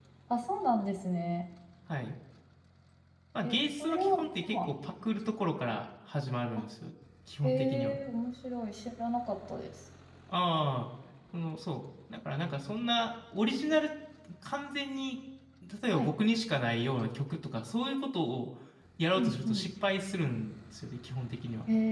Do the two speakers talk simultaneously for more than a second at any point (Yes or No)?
Yes